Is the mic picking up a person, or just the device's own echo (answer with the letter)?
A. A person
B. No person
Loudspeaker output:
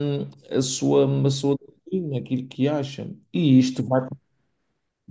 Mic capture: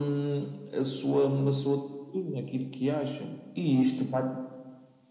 B